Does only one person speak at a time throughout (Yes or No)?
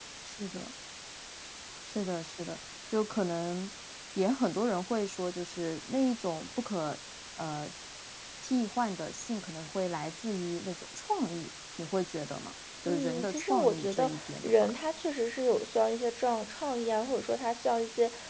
No